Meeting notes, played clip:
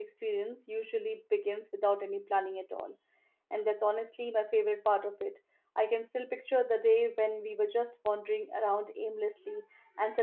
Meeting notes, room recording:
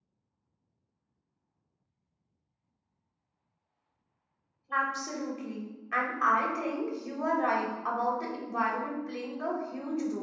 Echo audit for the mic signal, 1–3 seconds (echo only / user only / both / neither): neither